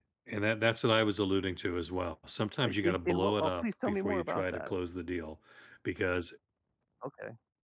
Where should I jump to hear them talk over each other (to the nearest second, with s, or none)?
3 s